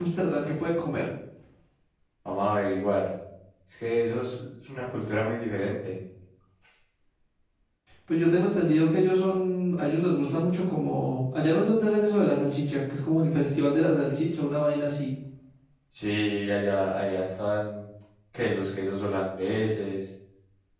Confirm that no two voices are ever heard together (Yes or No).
Yes